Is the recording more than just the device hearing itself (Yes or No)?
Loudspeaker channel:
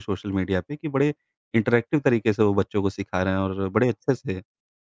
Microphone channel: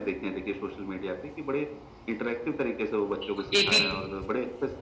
Yes